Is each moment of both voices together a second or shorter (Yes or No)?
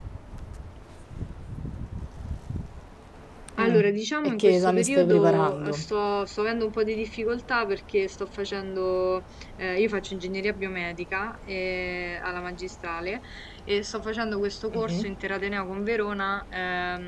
No